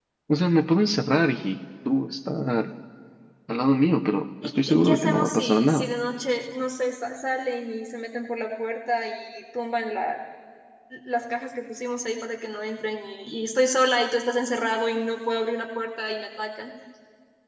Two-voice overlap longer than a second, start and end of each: 4.4-5.9

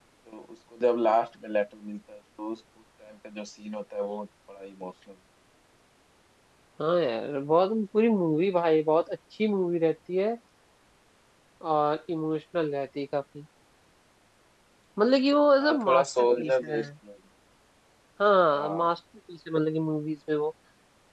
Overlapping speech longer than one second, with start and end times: 15.6-16.8

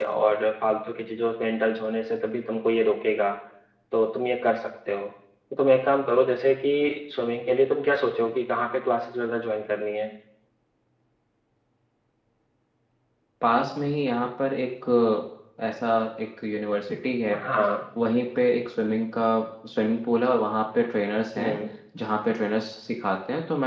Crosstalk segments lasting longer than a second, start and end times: none

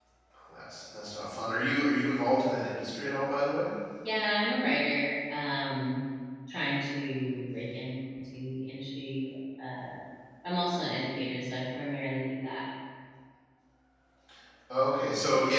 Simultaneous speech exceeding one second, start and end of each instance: none

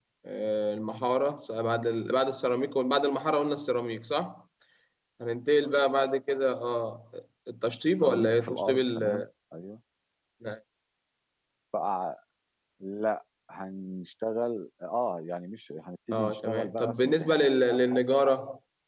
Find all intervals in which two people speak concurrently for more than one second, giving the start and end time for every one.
8.0-9.2, 16.1-17.5

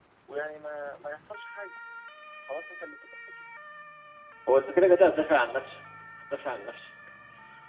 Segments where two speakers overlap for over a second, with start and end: none

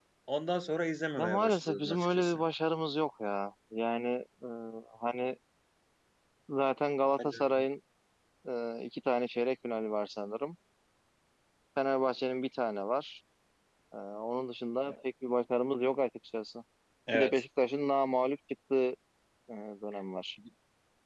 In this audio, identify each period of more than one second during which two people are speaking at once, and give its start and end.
1.2-2.4

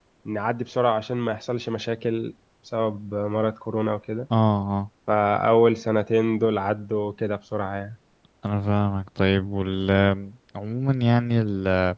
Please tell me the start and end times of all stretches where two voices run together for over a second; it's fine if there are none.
none

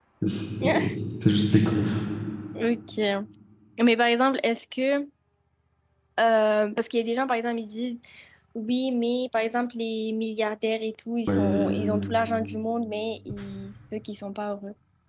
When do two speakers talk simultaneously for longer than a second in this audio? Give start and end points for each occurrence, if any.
none

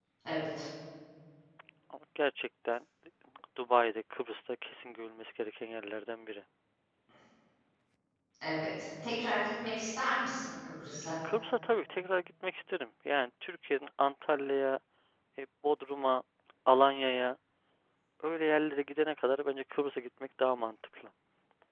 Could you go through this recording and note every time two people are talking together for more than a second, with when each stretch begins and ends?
none

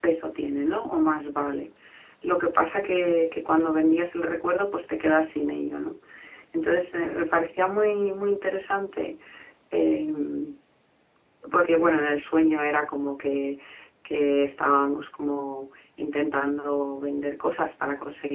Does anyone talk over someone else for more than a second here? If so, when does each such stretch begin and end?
none

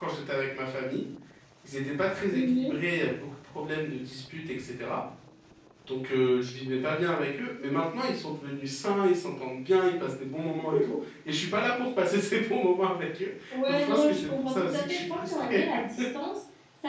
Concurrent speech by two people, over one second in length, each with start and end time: 13.7-15.6

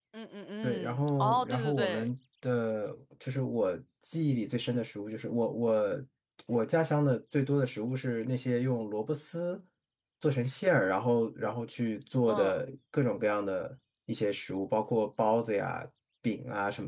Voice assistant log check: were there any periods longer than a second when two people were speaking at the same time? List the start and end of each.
0.6-2.1

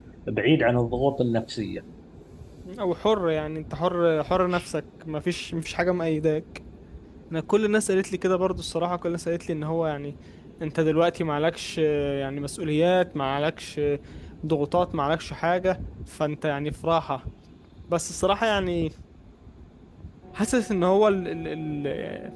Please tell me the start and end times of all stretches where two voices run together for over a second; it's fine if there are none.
none

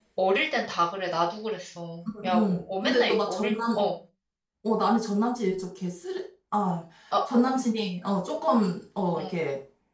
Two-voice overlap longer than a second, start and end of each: 2.1-3.8

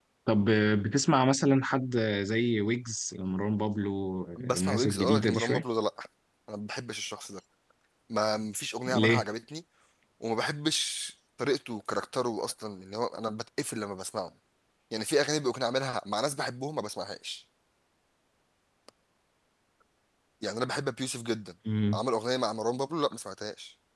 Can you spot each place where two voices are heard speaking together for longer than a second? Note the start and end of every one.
4.4-5.6

